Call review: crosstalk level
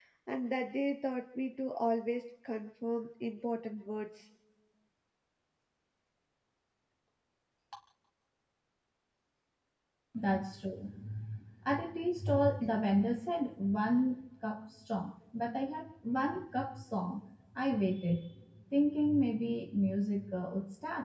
none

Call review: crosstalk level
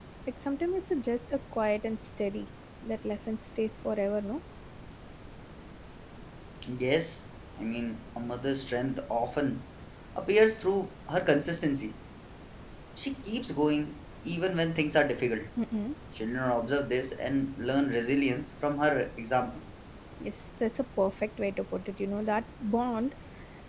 none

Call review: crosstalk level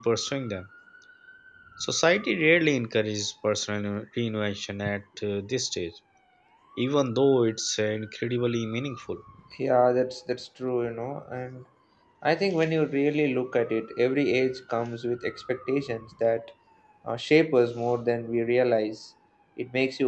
none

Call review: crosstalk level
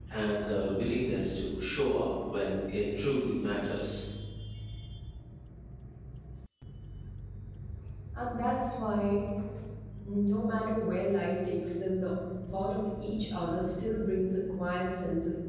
none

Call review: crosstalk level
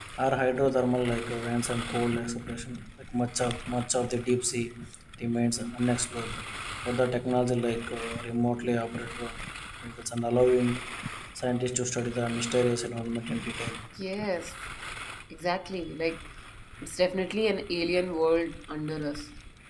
none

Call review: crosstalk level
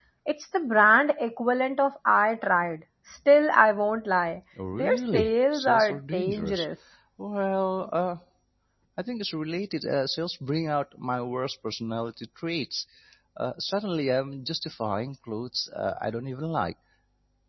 present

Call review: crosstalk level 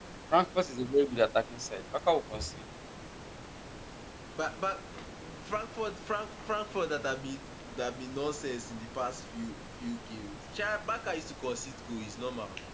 none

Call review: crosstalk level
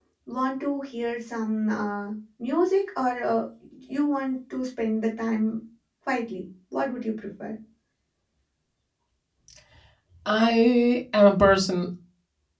none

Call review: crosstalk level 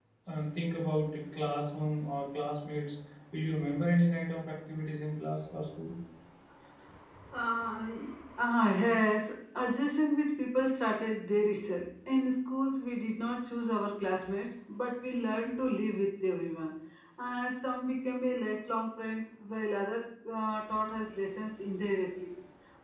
none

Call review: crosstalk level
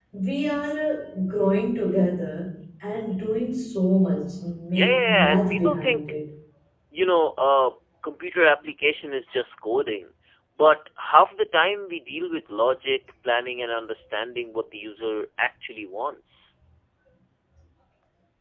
present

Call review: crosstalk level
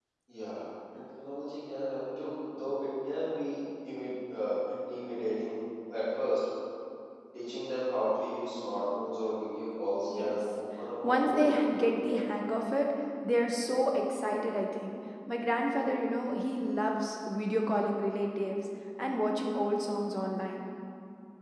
present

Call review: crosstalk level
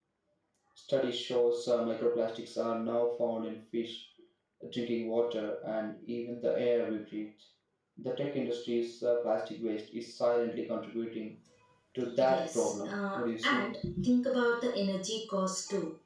present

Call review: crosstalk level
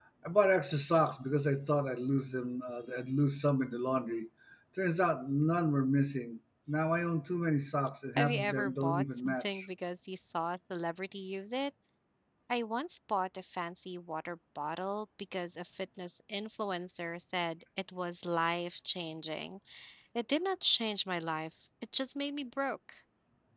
present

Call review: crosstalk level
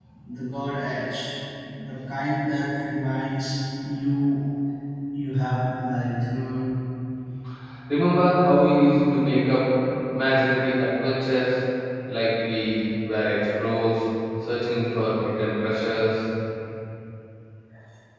none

